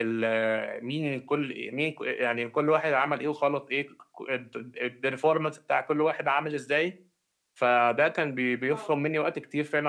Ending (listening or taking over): listening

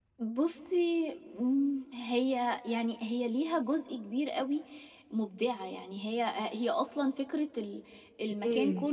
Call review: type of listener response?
listening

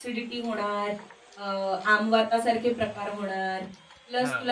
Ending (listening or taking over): listening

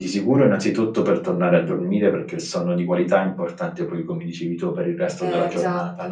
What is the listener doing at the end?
listening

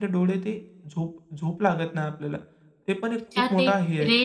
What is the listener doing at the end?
taking over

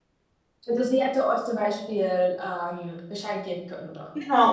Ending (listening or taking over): taking over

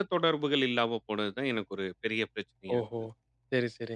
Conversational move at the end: taking over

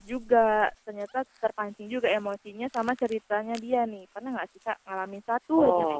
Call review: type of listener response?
taking over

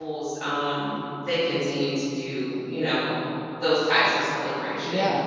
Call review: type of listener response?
taking over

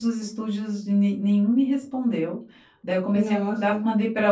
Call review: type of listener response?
listening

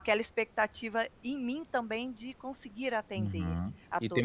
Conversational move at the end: taking over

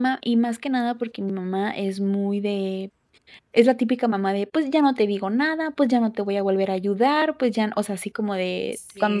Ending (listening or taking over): taking over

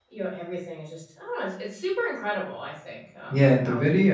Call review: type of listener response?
taking over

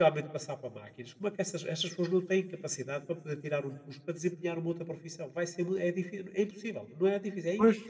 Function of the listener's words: taking over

